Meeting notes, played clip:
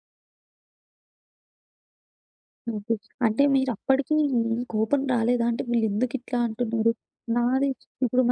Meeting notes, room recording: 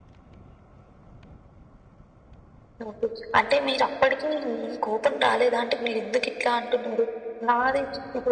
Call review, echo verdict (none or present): present